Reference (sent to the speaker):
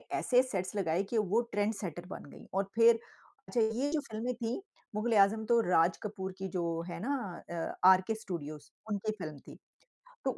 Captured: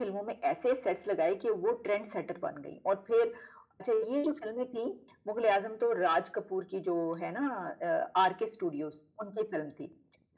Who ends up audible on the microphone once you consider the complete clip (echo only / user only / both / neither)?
echo only